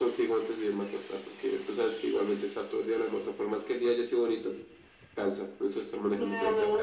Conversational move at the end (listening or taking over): taking over